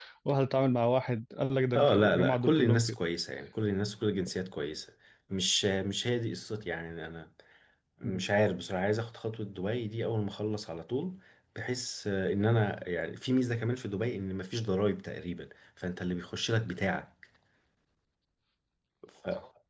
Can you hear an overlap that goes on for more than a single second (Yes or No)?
Yes